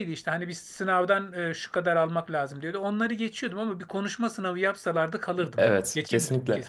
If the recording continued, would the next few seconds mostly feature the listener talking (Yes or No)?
Yes